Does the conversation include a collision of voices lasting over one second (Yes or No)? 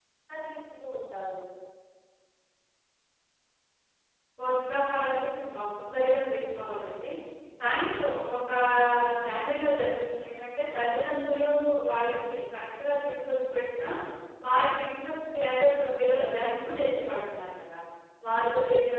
No